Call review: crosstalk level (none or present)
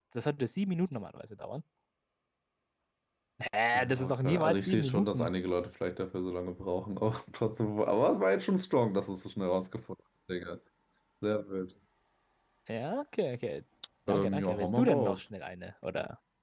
present